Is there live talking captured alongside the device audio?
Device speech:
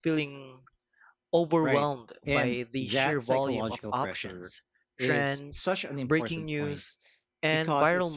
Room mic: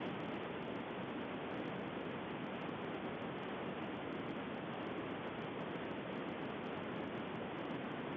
No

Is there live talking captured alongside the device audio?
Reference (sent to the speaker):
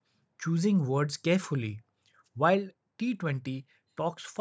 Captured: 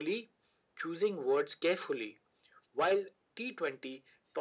No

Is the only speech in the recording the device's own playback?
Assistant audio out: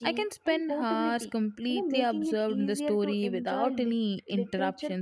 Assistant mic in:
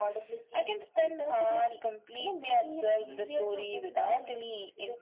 Yes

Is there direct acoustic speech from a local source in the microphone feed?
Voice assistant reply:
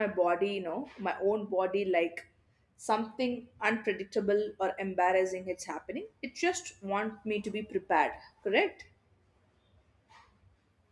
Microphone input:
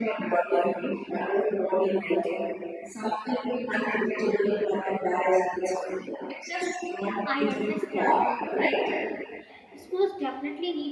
Yes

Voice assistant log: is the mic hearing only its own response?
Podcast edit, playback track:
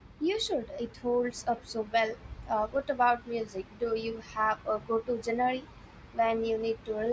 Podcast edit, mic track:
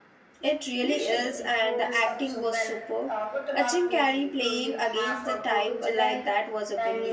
No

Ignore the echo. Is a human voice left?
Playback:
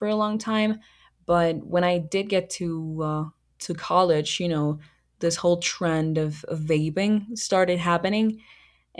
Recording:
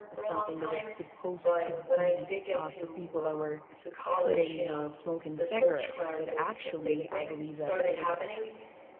Yes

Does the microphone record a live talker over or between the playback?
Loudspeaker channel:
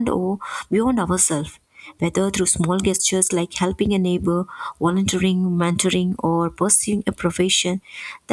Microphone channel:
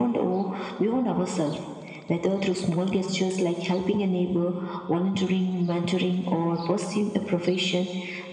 No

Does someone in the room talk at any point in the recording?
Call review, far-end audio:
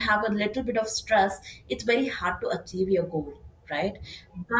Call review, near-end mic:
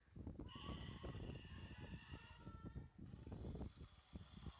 No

